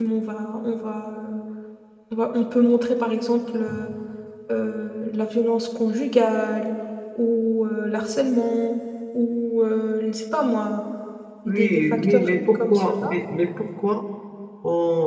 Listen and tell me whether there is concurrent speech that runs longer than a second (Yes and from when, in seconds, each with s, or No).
Yes, from 11.5 s